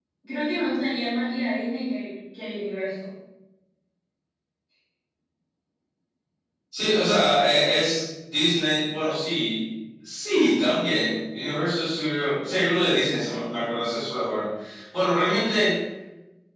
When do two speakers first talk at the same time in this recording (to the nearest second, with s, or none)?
none